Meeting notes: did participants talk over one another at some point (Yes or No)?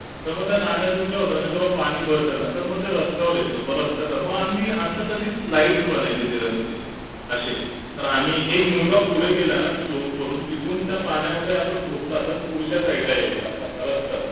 No